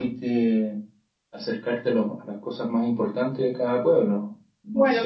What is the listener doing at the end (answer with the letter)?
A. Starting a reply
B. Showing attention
A